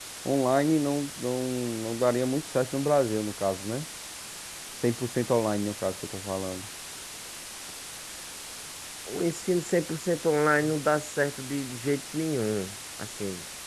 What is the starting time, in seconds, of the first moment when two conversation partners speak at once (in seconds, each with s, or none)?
none